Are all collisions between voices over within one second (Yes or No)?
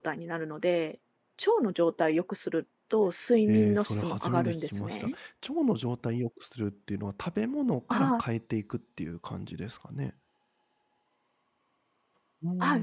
No